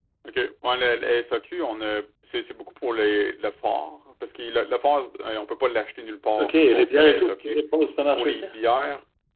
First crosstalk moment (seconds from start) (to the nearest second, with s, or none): 6 s